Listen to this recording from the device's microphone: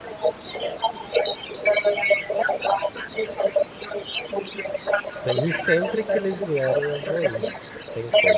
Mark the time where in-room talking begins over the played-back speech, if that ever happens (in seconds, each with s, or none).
5.1 s